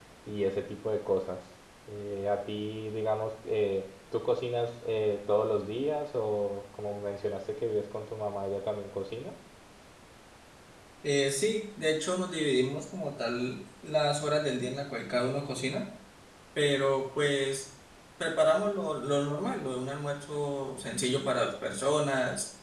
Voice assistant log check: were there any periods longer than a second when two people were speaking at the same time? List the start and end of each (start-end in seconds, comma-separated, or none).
none